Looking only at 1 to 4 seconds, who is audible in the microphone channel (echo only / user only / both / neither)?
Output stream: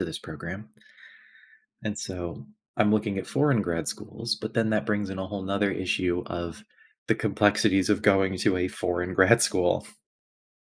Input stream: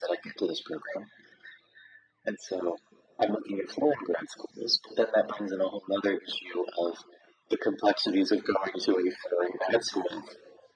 echo only